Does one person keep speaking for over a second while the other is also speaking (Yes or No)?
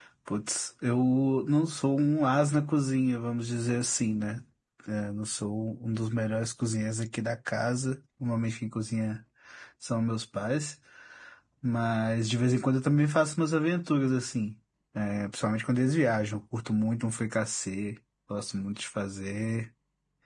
No